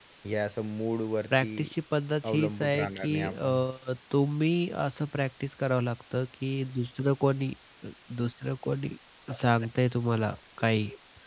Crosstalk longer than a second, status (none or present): present